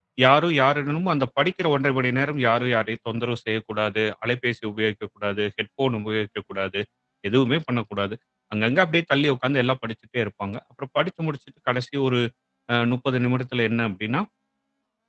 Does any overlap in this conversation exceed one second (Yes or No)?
No